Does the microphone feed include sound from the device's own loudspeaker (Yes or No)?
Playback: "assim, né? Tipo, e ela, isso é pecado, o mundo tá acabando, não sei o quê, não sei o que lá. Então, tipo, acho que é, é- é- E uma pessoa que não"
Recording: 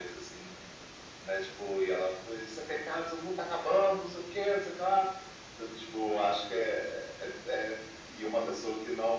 Yes